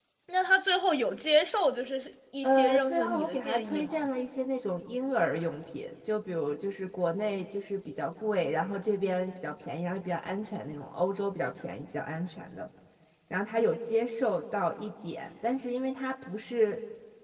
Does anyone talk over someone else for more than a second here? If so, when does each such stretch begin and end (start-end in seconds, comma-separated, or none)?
2.4-4.1